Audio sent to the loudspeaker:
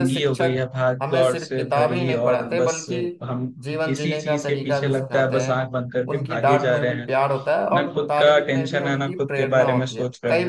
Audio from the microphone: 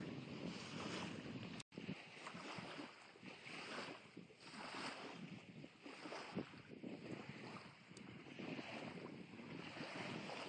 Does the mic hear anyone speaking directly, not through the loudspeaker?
No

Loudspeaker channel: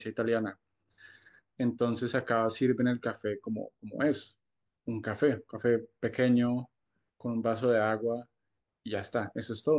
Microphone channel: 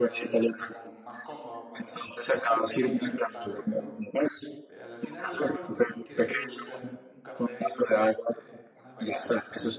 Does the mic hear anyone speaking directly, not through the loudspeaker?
Yes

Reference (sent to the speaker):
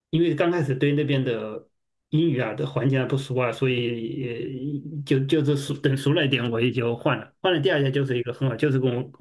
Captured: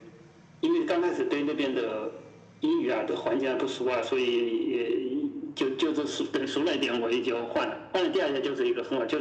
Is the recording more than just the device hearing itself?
No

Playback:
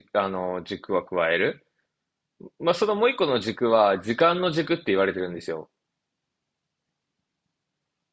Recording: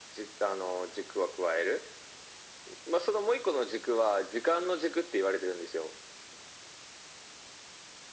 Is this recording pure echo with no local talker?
Yes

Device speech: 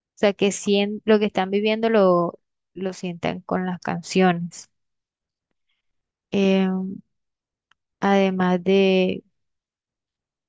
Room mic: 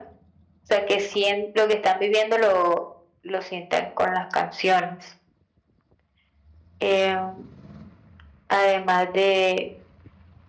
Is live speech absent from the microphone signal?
Yes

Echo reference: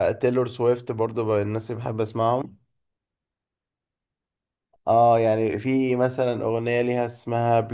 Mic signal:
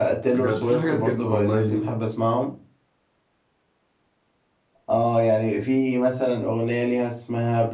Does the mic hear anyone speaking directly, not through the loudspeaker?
Yes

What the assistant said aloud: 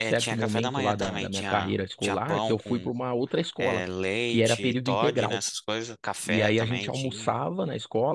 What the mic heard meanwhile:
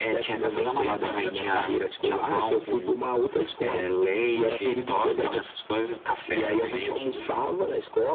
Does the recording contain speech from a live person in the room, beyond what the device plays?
No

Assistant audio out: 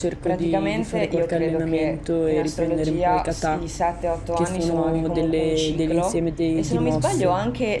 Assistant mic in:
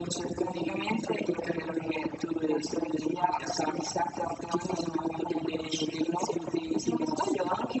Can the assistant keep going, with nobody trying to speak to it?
Yes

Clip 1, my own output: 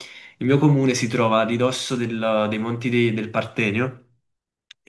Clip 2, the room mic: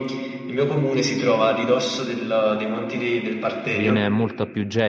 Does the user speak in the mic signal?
Yes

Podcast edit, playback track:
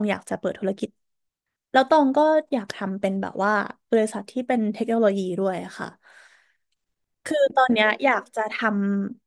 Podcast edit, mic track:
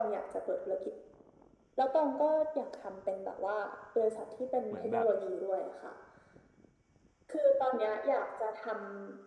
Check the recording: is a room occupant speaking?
Yes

